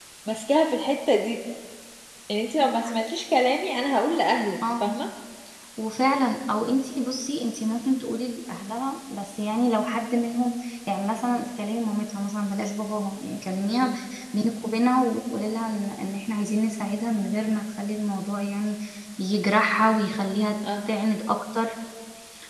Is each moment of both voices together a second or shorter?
Yes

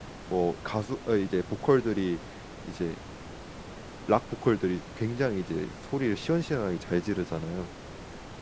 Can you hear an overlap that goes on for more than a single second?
No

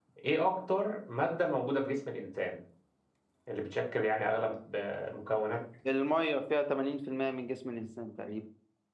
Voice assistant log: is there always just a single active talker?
Yes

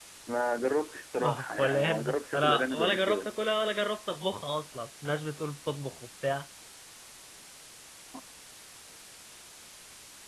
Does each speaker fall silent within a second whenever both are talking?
No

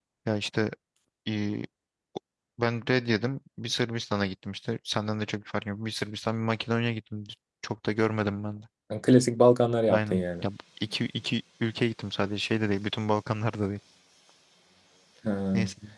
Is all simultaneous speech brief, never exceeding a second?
Yes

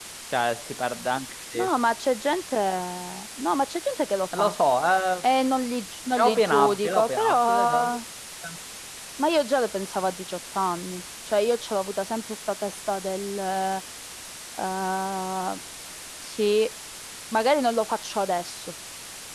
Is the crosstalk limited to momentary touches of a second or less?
No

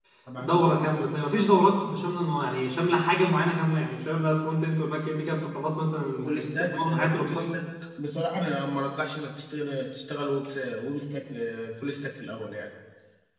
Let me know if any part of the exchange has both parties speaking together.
Yes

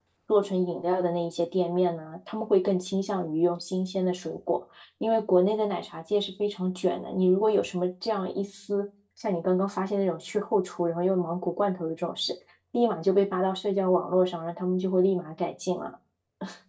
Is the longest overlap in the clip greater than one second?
No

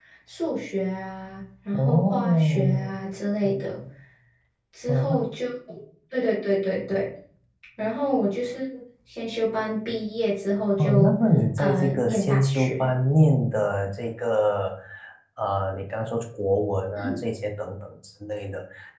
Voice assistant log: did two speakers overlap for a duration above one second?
Yes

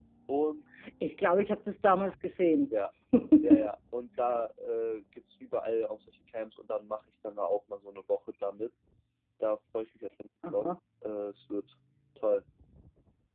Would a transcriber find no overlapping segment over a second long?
Yes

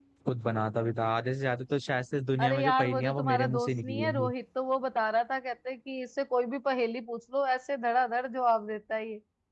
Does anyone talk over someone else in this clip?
Yes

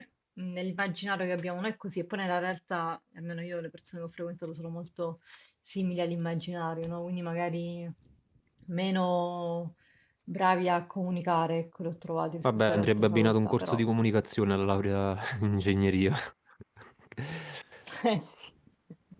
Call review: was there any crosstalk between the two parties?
Yes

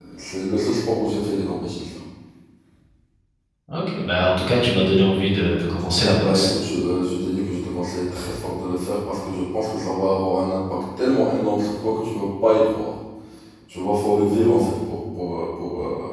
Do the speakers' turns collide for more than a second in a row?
No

